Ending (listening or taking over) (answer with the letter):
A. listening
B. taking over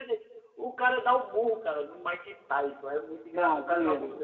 A